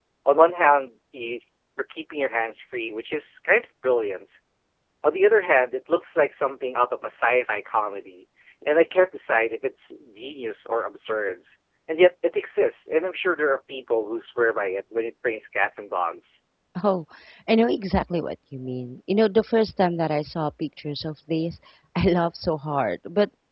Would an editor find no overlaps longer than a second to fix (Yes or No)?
Yes